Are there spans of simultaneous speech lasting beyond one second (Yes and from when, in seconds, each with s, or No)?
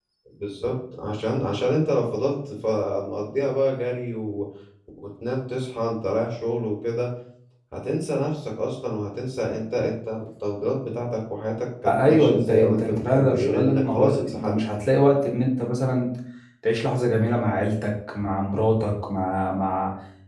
Yes, from 11.8 s